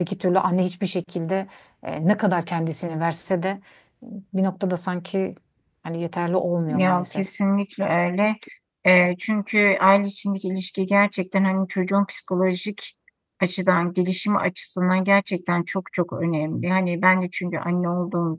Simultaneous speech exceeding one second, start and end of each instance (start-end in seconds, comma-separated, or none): none